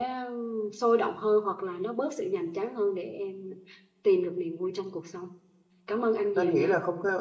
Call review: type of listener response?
taking over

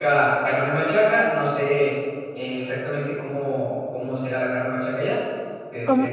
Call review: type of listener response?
taking over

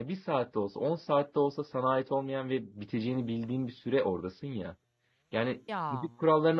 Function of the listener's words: listening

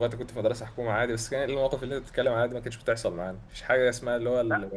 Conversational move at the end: listening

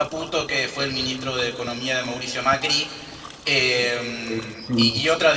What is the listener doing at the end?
listening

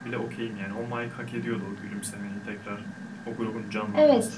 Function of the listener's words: taking over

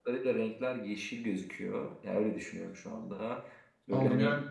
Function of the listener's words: taking over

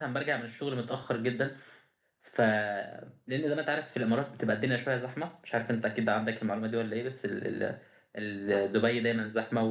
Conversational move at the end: listening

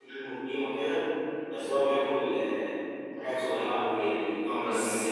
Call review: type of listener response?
listening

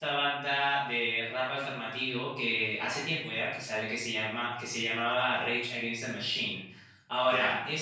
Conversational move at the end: listening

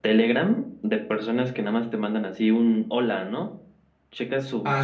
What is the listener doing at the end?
listening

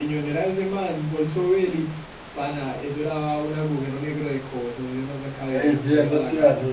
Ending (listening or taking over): taking over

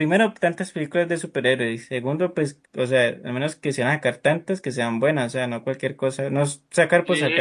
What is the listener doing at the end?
taking over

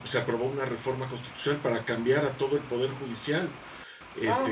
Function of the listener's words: listening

